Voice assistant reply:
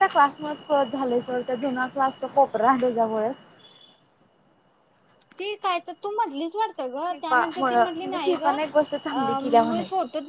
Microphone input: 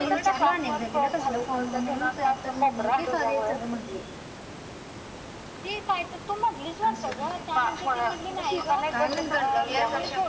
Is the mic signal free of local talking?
No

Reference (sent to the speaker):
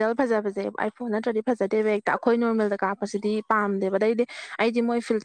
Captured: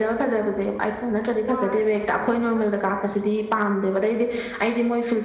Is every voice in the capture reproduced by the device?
No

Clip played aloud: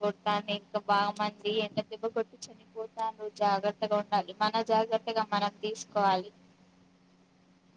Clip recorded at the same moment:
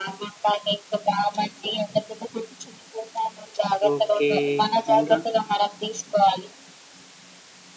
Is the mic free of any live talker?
No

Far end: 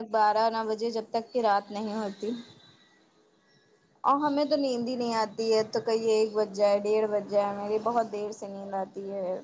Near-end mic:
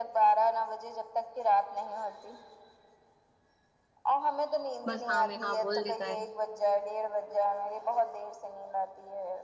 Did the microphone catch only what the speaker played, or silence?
No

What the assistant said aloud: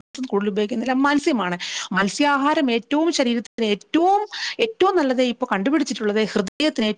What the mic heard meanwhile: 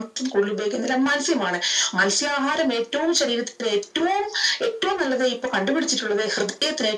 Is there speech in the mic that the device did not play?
No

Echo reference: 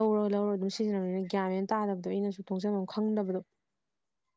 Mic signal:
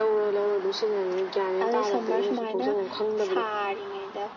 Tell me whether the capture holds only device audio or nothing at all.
No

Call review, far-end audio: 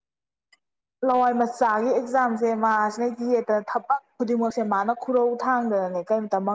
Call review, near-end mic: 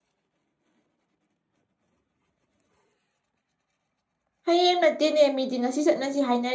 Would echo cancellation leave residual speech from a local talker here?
Yes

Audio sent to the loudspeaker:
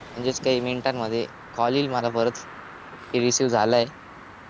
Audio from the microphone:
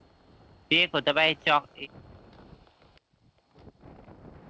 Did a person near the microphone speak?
Yes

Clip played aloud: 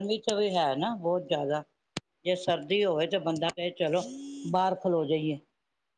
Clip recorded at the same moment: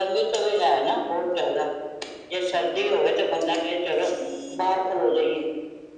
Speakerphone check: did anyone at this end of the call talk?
No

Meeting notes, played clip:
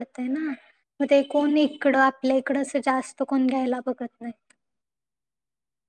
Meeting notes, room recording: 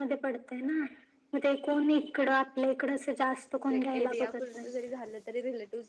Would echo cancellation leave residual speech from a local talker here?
Yes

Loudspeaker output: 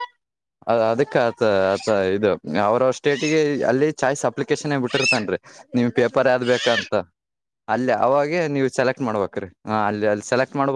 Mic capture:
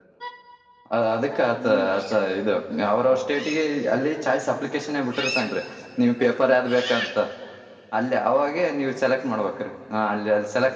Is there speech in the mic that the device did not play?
Yes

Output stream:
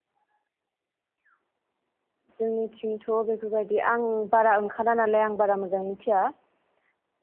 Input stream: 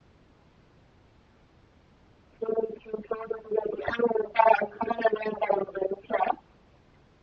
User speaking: No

